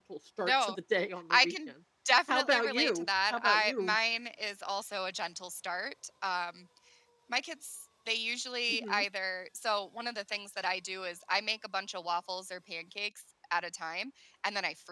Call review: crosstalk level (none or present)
present